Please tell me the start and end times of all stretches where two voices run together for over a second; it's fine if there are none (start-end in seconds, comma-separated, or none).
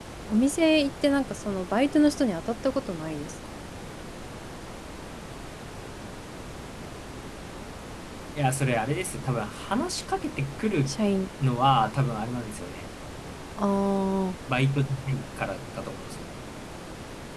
none